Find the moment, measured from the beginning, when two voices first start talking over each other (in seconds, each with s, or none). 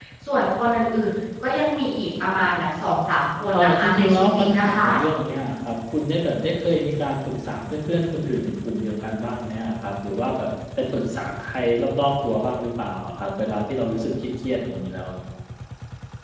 3.5 s